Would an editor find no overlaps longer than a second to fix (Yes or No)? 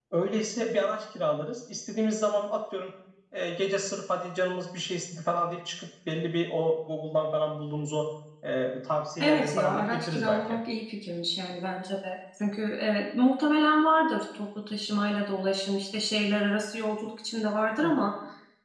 No